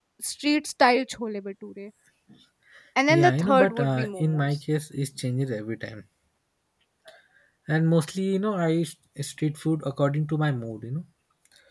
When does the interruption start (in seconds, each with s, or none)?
3.1 s